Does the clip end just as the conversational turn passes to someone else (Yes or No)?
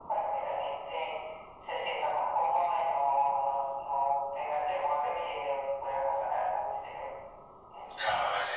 Yes